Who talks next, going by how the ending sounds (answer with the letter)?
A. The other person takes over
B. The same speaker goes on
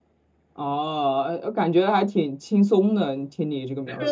A